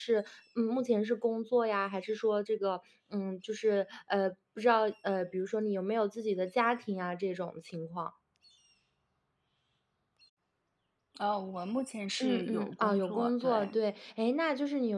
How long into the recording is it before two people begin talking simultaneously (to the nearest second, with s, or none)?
12 s